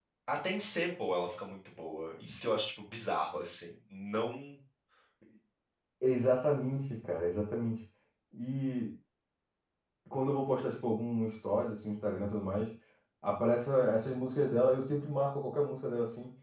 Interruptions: none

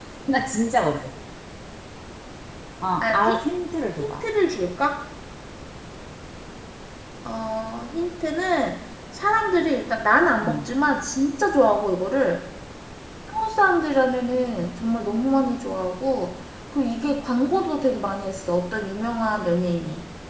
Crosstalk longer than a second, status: none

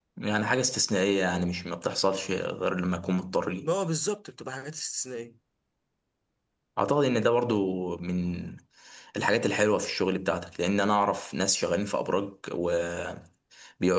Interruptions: none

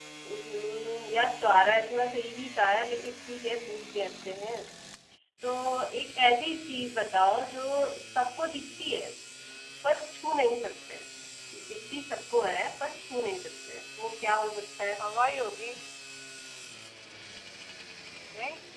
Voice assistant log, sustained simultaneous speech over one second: none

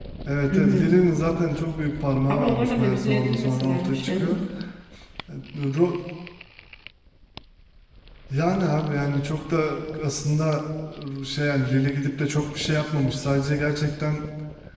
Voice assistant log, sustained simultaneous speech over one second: present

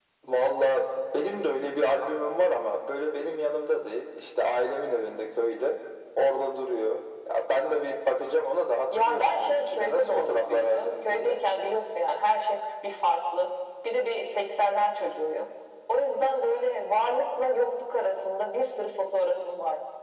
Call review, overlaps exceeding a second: present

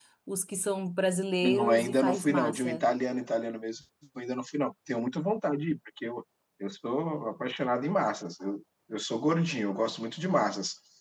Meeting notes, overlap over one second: present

